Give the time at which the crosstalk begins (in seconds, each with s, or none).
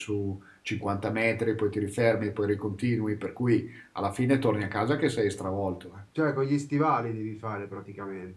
none